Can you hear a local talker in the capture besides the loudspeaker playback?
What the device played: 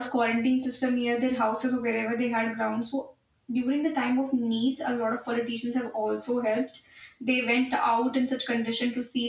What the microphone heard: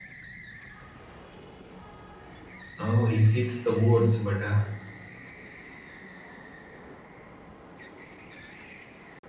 Yes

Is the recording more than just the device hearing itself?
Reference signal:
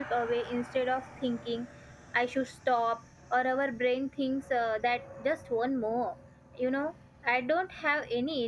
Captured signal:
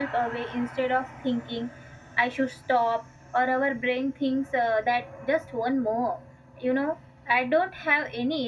No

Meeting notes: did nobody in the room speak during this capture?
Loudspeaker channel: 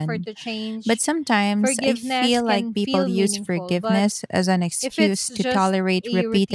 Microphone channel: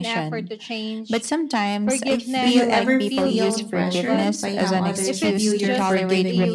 No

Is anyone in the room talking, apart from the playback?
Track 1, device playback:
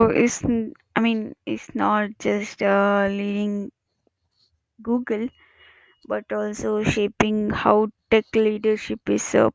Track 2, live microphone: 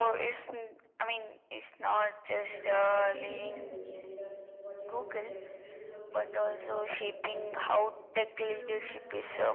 Yes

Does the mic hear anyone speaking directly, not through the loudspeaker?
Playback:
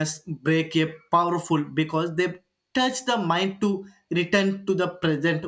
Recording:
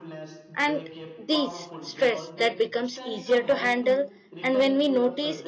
Yes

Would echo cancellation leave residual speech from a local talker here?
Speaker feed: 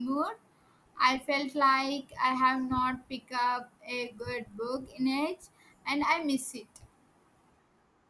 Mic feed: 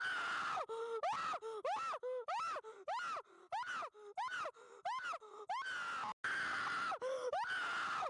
No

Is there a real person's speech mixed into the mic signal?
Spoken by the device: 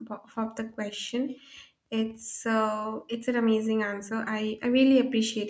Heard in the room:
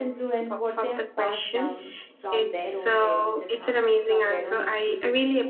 Yes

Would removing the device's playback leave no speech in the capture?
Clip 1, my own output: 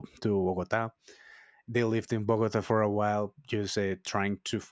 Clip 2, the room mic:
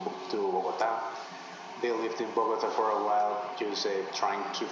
Yes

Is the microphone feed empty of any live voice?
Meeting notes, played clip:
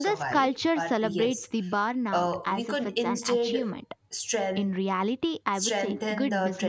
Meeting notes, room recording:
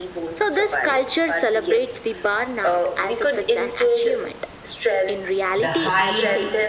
No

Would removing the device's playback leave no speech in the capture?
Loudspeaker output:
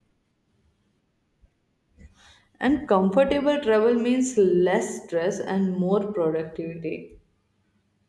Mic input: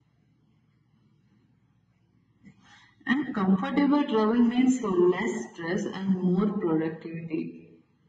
Yes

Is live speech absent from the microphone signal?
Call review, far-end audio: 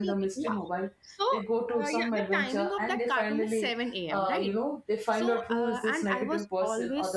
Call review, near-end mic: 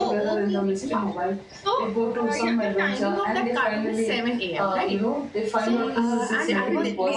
No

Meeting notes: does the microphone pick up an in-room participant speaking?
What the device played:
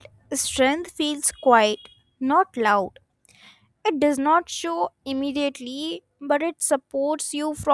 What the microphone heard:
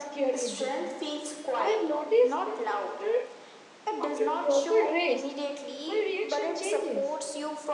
Yes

